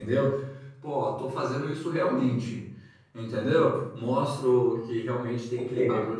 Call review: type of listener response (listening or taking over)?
listening